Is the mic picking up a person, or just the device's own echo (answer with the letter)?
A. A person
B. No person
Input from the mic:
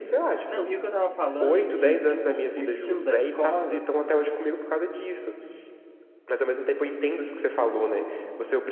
A